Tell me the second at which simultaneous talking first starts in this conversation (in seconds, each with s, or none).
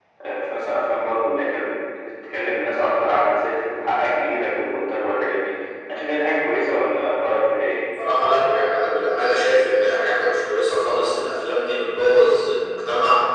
none